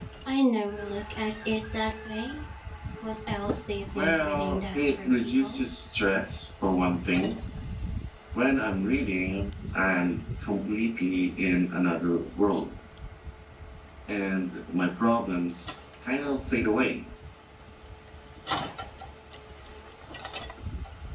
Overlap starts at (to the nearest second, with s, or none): 4 s